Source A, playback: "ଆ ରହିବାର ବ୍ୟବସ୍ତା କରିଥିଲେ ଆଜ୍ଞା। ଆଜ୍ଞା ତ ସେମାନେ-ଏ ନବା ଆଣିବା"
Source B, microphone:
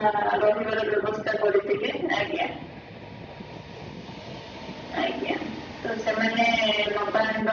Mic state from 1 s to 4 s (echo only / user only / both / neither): echo only